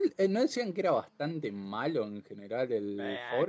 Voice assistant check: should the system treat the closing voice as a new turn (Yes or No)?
Yes